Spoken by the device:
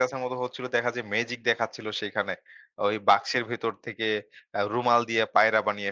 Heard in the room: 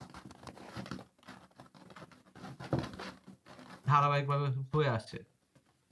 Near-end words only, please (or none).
ধারাবাহিকভাবে হয়ে আসছে।